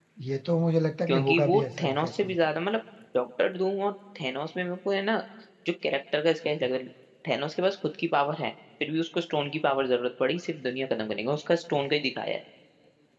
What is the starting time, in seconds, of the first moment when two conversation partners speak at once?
1 s

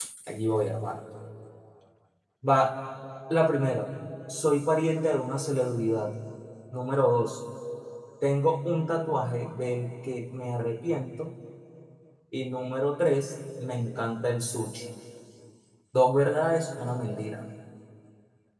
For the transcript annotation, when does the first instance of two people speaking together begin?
none

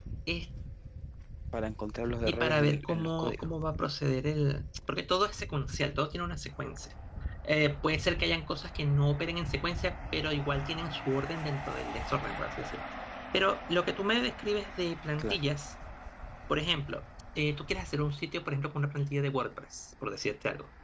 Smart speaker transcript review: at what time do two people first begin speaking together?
2 s

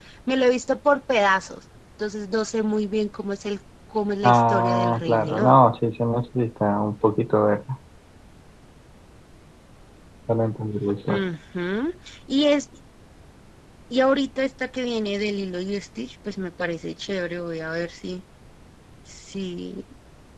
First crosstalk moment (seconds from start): 4 s

